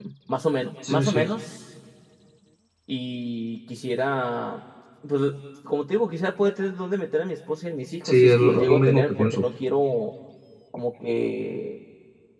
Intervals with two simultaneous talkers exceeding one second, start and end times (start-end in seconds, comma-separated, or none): 8.1-9.4